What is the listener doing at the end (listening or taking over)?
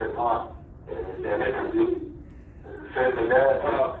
listening